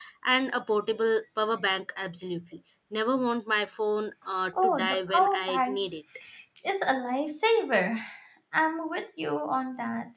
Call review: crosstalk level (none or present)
present